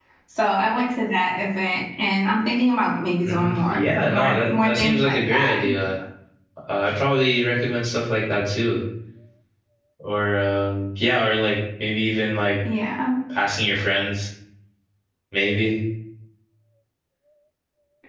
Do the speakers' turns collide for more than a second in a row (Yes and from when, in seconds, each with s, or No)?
Yes, from 3.2 s